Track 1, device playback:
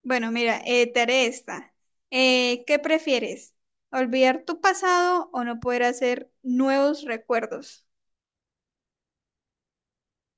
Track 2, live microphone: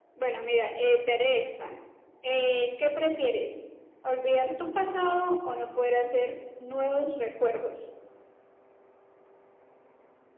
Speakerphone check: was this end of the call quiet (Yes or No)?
Yes